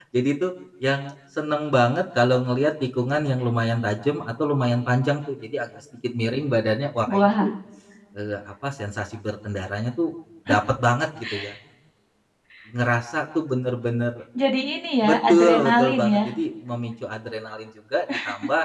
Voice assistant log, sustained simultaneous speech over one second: present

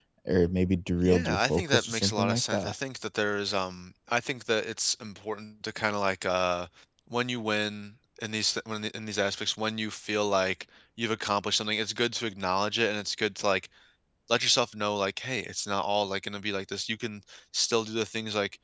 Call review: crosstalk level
present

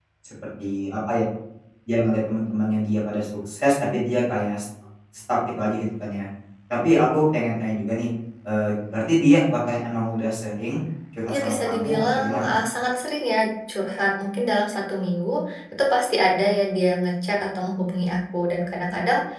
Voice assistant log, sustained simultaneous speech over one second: present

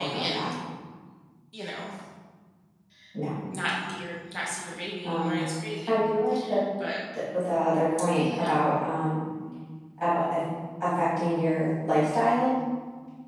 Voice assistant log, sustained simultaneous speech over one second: none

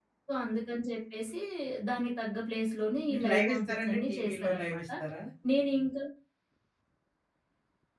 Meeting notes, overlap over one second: present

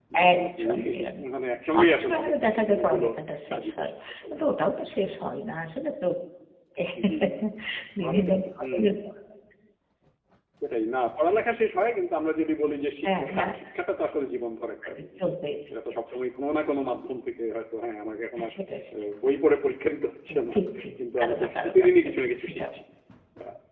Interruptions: present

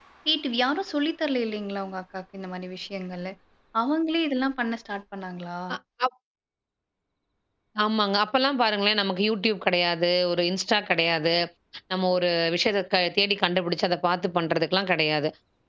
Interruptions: none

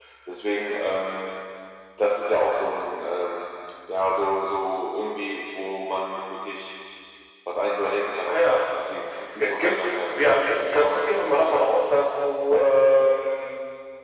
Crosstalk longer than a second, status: present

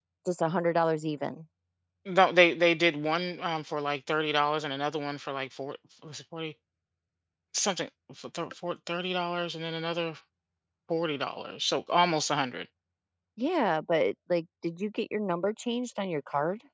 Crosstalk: none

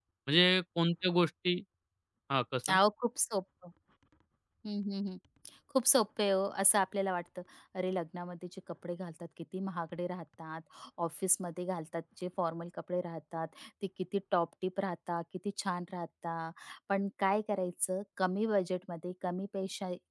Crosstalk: none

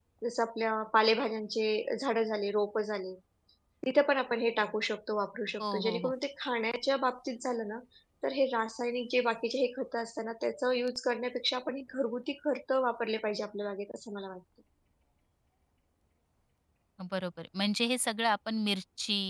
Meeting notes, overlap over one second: none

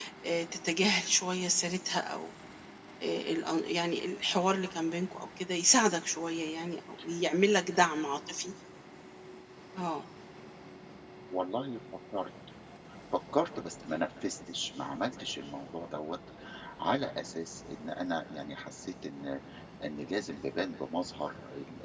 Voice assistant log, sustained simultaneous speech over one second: none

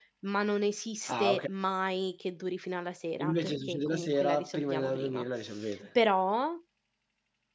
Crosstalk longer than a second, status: present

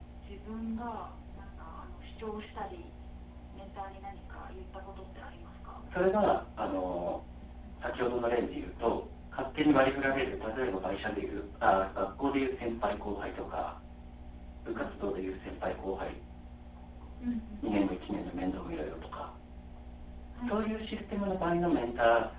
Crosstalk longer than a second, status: none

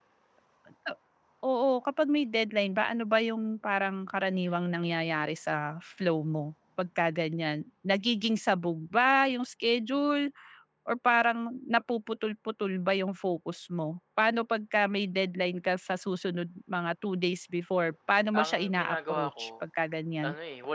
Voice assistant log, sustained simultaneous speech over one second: present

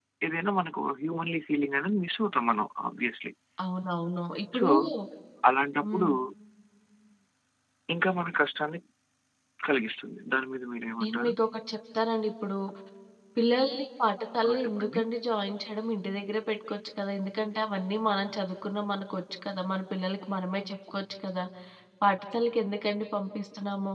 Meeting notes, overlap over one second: none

